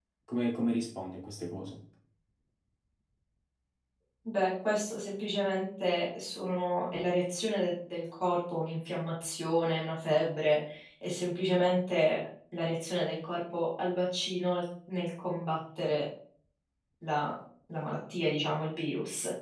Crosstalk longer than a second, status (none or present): none